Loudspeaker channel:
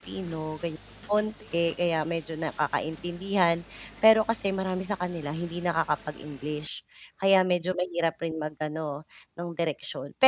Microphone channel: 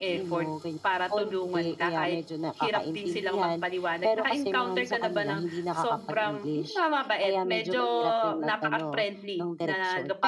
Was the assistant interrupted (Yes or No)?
Yes